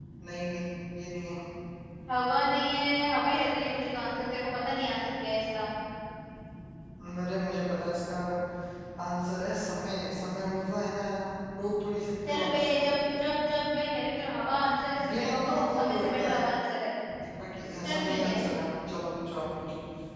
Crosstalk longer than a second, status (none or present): present